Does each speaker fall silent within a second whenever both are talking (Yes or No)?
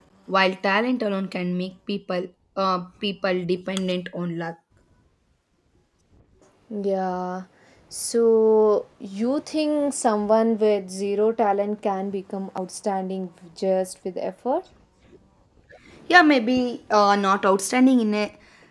Yes